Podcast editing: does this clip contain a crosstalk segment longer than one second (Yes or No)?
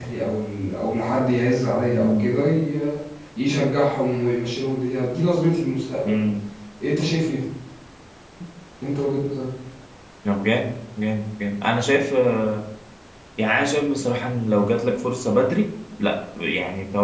No